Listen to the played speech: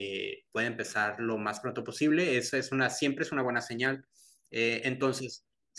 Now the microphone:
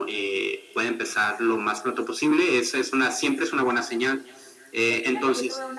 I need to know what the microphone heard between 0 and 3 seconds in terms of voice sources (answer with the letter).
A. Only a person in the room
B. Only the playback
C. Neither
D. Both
B